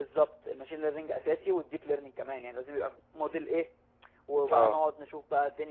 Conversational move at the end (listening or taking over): listening